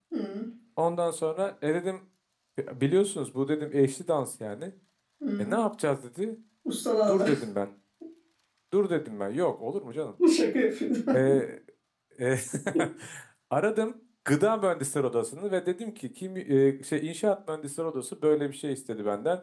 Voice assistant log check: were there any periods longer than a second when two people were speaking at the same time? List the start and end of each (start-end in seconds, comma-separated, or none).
none